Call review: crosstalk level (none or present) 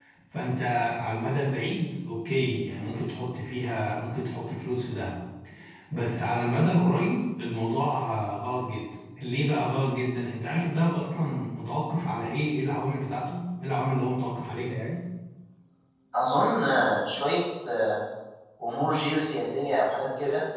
none